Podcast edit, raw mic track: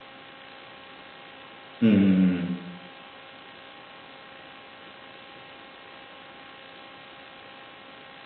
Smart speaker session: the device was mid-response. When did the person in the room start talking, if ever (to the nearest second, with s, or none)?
2 s